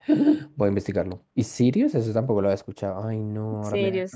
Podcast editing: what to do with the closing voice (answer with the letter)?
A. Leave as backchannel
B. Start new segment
B